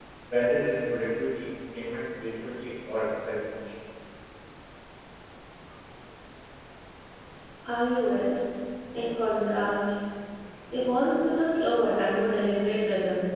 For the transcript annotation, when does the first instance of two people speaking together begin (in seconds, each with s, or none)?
none